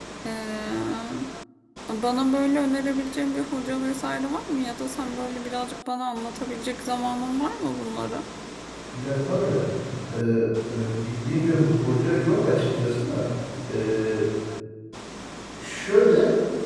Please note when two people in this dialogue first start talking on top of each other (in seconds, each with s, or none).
none